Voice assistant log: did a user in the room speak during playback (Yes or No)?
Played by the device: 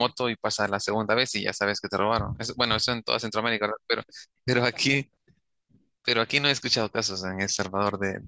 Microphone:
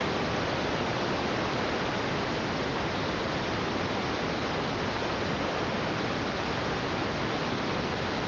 No